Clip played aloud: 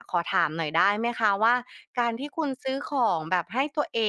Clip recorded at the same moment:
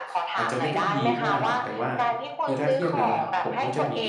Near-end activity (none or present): present